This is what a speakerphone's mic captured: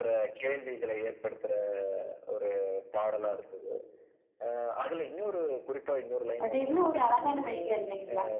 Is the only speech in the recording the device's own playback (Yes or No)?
No